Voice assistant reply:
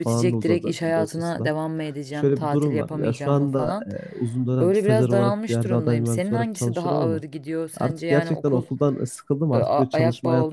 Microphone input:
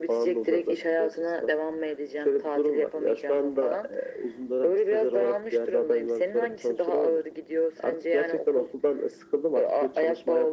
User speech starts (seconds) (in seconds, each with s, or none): none